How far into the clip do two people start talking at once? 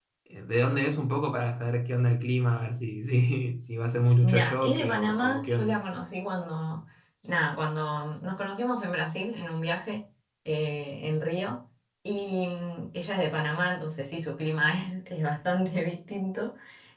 4 s

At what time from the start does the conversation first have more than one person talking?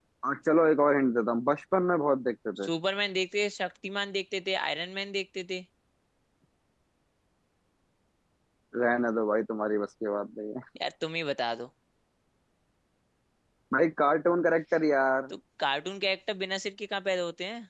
none

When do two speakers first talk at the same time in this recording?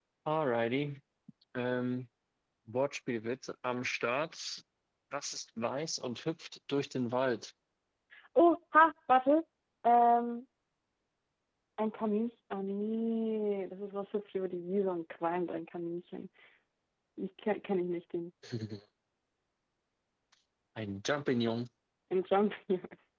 none

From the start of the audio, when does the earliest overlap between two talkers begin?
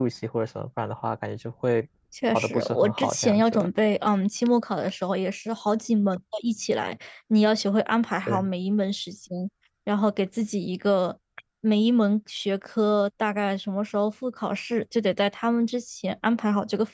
2 s

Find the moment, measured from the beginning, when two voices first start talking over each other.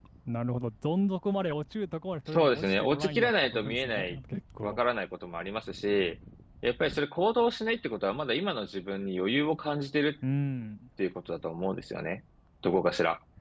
2 s

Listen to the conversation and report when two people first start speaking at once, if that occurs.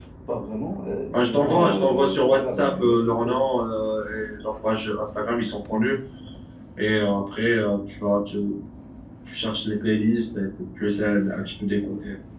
1 s

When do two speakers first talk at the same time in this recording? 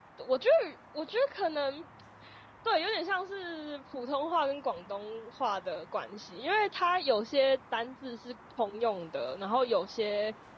none

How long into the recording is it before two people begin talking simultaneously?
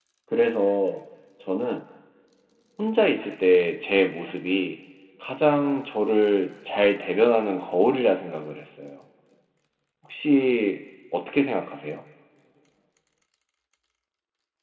none

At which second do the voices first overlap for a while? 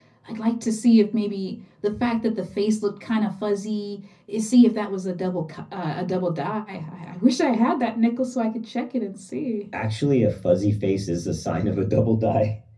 none

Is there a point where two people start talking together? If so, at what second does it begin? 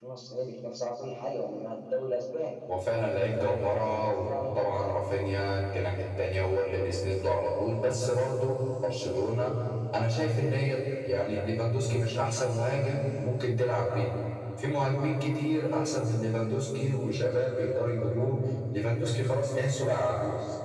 3 s

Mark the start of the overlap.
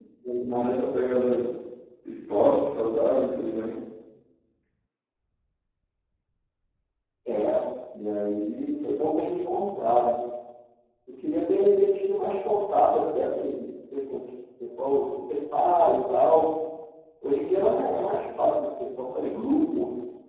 none

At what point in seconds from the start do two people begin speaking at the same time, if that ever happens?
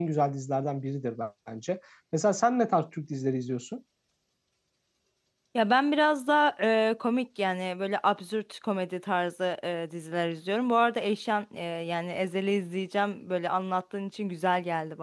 none

